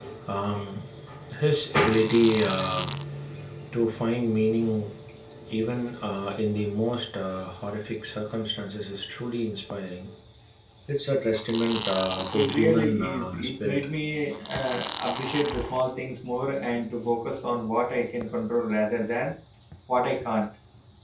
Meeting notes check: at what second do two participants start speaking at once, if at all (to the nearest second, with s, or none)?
12 s